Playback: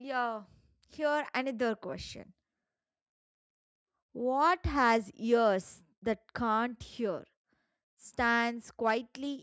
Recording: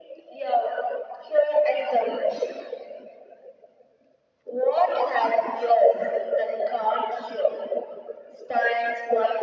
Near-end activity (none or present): none